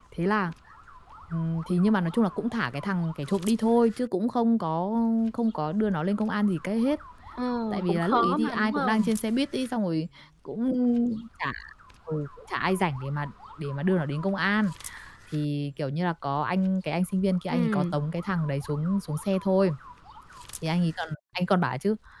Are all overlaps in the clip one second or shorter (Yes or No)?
No